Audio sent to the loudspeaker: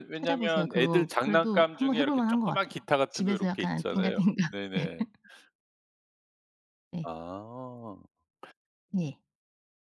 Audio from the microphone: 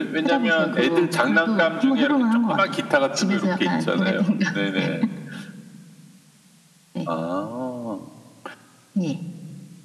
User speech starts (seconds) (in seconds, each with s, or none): none